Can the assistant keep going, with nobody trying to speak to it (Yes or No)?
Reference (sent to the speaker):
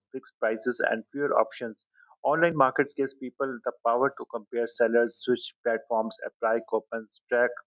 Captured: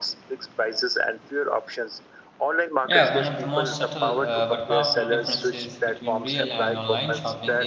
No